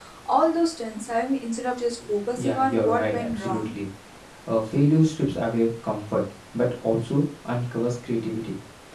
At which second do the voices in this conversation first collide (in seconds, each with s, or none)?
2.4 s